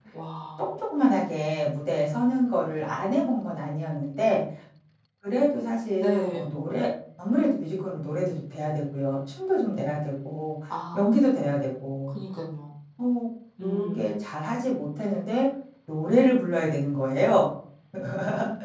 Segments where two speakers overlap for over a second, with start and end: none

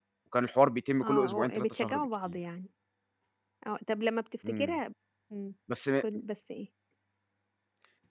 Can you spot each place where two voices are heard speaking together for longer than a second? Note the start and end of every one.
1.0-2.4

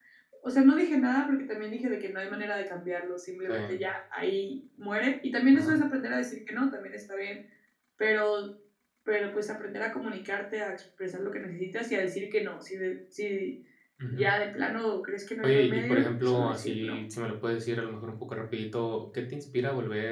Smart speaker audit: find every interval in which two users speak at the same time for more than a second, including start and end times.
15.4-17.0

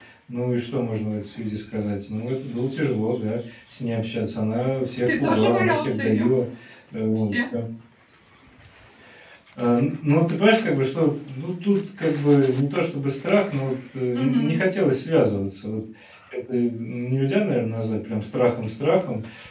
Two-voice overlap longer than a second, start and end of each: 5.1-6.3

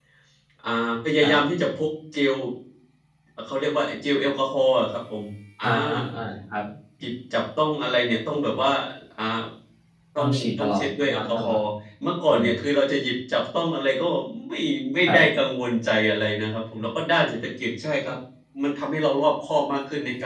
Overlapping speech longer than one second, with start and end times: 10.2-11.6

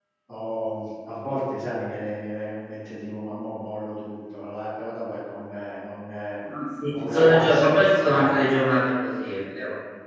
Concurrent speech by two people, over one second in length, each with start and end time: 7.0-8.5

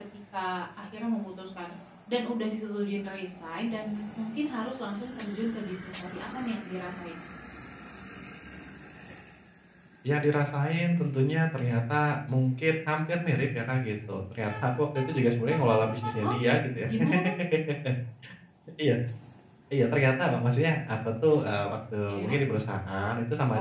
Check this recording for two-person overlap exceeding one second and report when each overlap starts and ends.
none

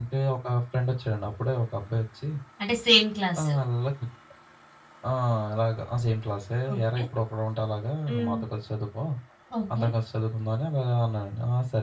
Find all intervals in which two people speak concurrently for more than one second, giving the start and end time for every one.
none

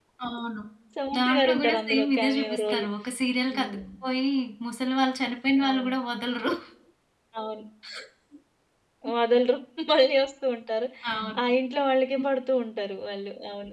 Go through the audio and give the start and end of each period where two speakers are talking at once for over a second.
1.2-2.8

